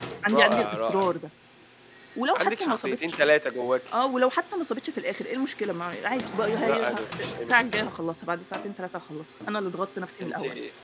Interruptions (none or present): present